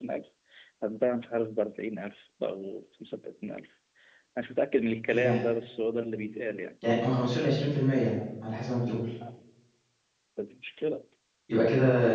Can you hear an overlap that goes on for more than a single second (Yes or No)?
No